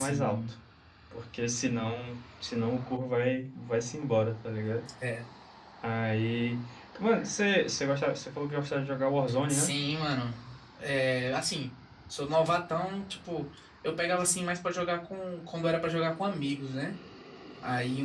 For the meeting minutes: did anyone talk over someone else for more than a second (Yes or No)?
No